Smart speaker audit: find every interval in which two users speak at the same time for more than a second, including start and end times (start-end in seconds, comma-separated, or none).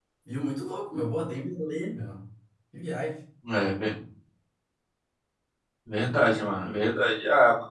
none